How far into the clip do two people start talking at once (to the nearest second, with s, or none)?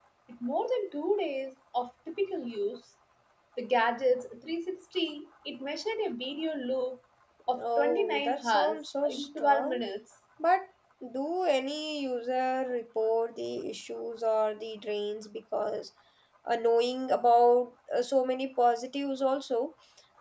8 s